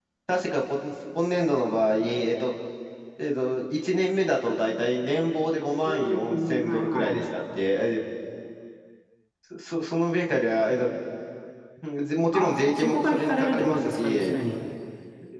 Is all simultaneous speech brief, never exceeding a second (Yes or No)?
No